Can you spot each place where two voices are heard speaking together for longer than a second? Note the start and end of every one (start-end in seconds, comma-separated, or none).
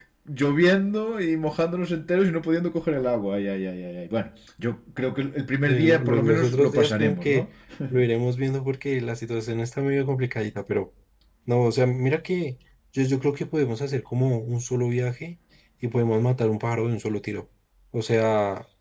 5.6-7.4